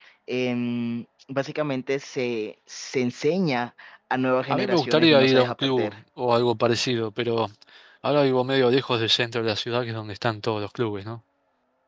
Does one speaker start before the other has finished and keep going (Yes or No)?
Yes